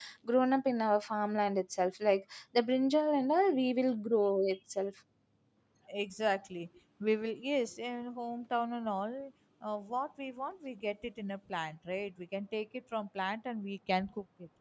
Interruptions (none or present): none